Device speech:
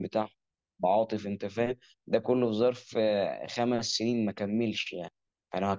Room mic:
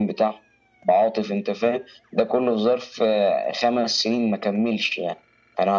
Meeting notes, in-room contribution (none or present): none